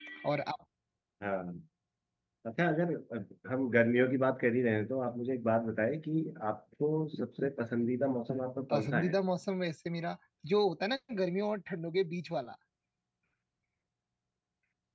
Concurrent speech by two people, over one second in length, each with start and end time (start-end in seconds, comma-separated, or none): none